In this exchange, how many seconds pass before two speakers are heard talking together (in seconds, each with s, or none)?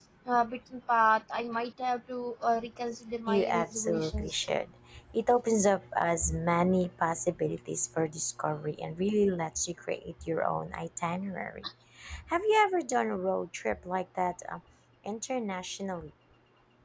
3.3 s